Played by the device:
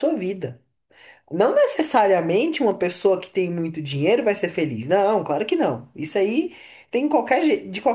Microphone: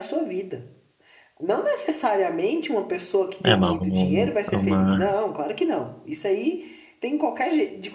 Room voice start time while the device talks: 3.4 s

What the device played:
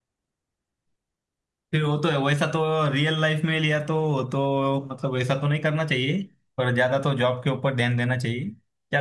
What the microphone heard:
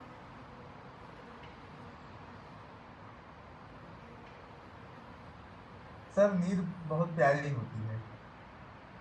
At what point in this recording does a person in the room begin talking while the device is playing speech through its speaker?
6.2 s

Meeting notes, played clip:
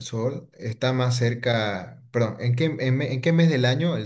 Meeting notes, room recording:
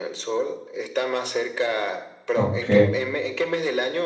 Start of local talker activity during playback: 2.3 s

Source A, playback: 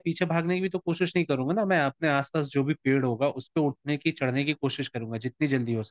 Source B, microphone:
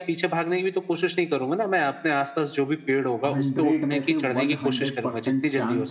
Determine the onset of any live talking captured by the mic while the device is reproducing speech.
3.2 s

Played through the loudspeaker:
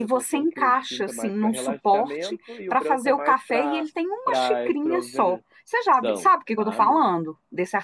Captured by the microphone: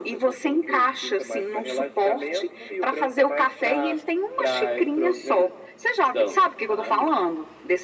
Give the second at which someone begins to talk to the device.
none

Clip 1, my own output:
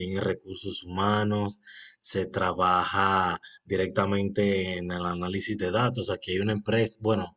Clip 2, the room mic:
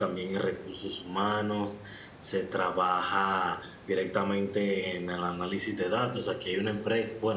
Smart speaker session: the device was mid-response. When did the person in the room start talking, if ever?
none

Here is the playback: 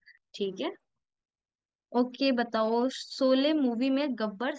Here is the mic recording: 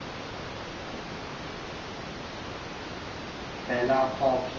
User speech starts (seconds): 3.7 s

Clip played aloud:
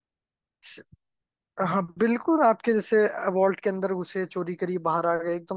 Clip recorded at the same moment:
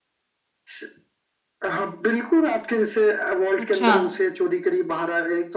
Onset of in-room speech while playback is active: 3.6 s

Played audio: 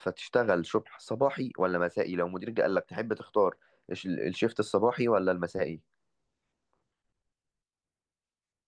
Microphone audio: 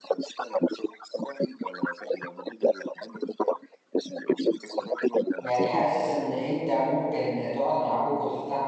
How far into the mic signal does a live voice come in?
5.4 s

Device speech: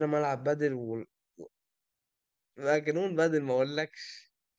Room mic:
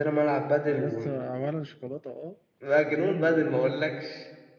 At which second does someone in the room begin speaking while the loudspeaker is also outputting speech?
0.7 s

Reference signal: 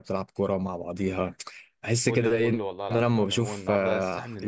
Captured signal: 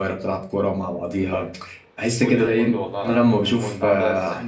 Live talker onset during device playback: none

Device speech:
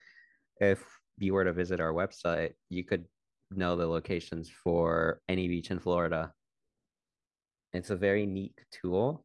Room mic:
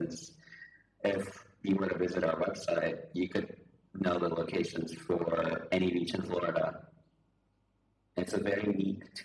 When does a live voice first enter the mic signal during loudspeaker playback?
none

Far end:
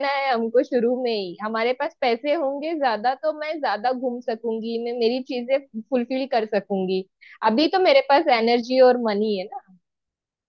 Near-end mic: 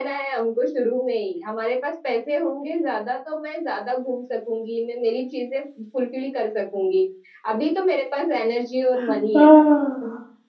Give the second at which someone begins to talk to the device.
9.1 s

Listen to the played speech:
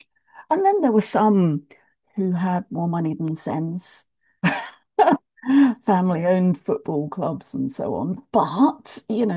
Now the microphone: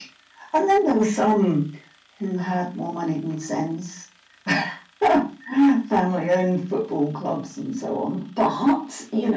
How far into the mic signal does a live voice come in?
none

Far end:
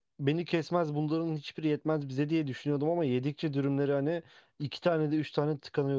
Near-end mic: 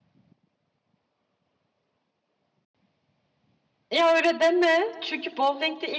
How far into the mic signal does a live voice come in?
3.9 s

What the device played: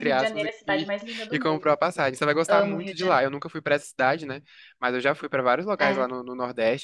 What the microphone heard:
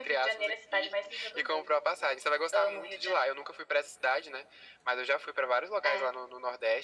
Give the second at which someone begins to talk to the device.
none

